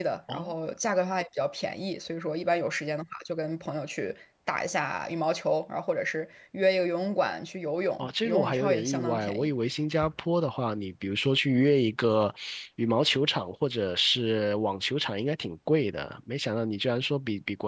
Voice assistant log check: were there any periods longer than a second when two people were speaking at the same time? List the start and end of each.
8.0-9.5

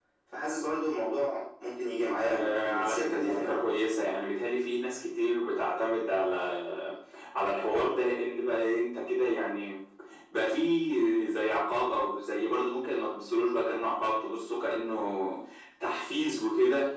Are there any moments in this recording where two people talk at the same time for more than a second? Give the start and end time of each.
2.2-3.6

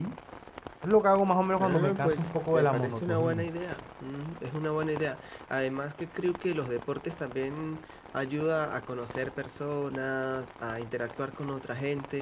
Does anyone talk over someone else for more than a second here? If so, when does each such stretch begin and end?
1.6-3.5

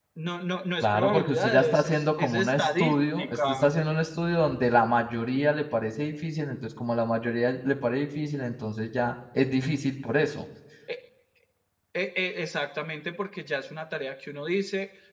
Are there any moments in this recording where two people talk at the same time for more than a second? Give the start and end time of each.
0.8-3.7

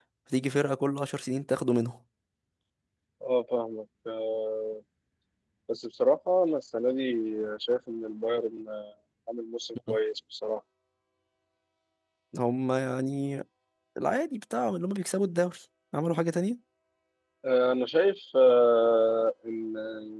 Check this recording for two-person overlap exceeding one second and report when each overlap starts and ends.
none

